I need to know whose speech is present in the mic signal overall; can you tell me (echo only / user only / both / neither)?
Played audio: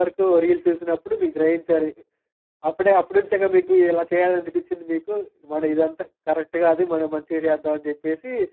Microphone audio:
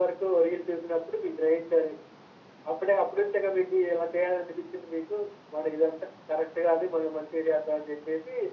echo only